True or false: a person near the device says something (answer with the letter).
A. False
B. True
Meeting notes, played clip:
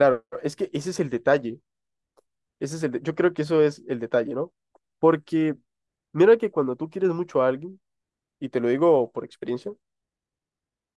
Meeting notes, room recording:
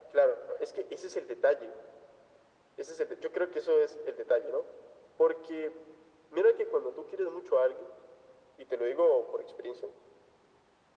A